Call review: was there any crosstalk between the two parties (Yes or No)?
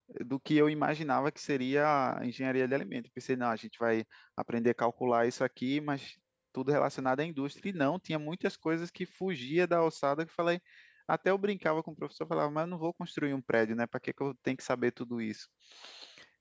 No